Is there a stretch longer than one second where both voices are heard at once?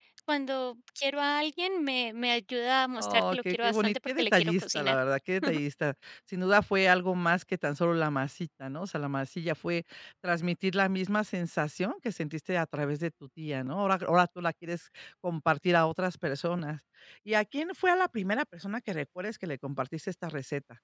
Yes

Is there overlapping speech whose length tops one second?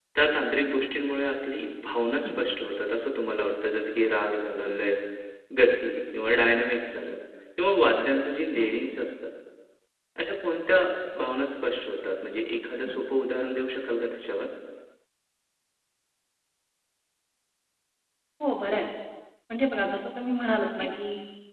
No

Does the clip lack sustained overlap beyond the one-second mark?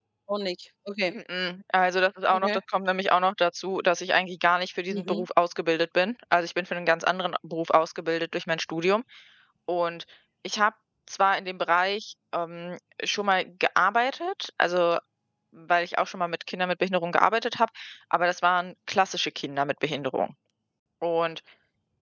Yes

